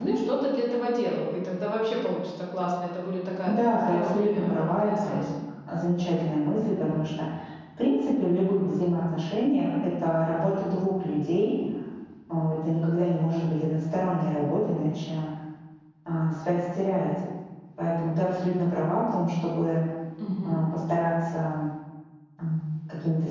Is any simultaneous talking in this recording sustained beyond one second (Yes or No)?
Yes